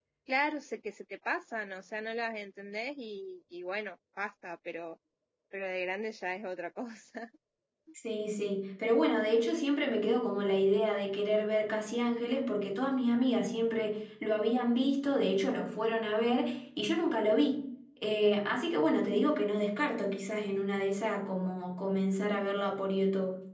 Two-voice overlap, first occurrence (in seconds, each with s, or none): none